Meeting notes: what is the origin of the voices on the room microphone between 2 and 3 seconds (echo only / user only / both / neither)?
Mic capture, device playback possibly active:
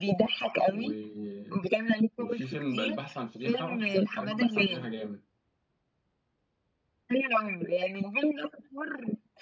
both